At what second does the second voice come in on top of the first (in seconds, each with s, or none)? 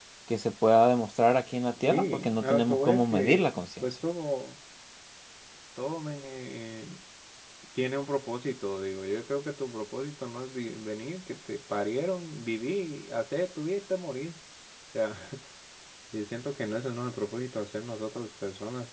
1.8 s